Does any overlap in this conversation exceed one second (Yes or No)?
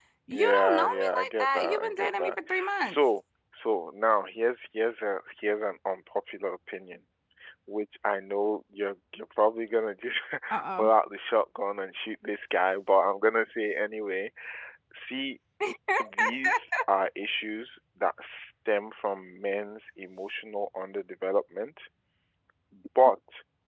Yes